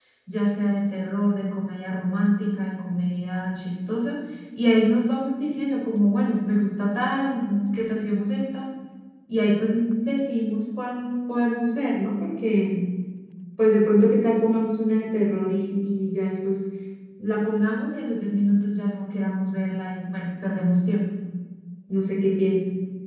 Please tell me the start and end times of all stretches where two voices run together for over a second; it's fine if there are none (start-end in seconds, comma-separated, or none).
none